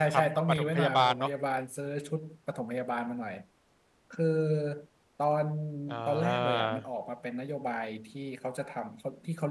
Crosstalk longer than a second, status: present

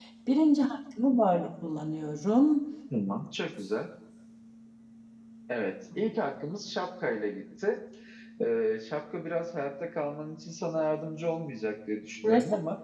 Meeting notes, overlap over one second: none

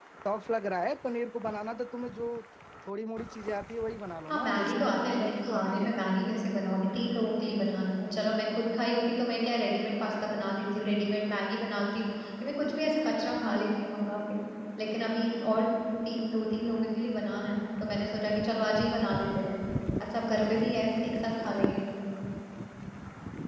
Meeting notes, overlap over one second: present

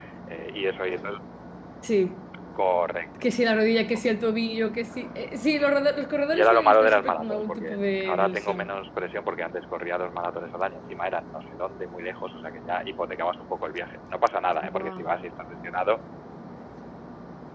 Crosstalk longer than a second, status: present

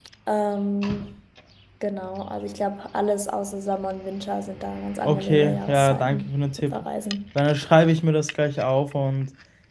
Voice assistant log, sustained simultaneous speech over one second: present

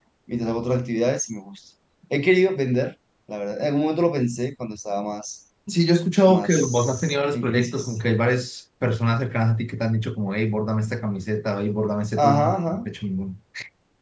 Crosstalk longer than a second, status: present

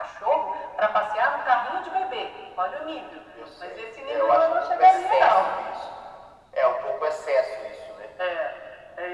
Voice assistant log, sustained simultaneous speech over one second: present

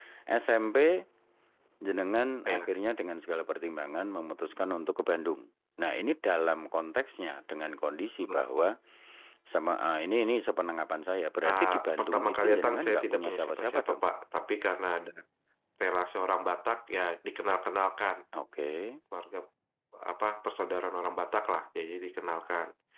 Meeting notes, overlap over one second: present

